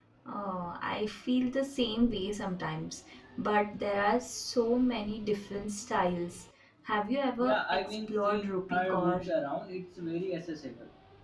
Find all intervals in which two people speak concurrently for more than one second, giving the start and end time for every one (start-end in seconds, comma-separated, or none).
7.4-9.2